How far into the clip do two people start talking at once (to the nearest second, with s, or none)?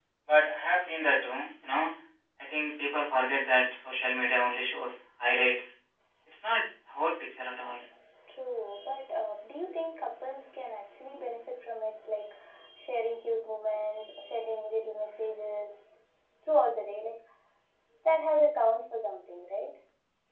none